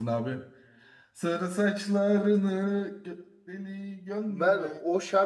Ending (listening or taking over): taking over